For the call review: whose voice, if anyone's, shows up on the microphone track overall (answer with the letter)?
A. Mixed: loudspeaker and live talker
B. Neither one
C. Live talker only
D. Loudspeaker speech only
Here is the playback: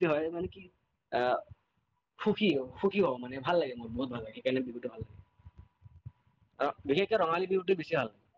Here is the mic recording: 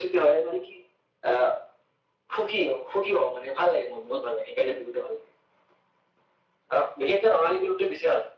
D